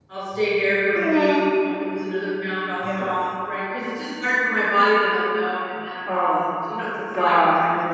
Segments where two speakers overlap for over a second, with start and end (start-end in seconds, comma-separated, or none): none